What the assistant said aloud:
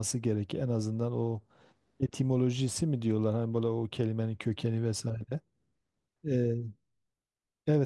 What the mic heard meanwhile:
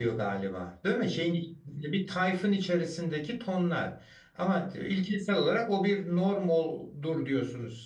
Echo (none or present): none